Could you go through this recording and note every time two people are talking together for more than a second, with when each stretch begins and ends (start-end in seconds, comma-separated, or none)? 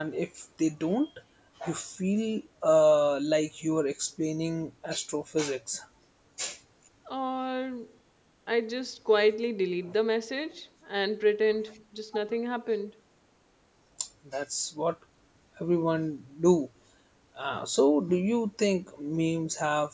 none